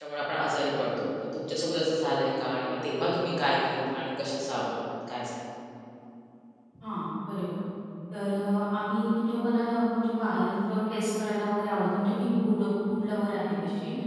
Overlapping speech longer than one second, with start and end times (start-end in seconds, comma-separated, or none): none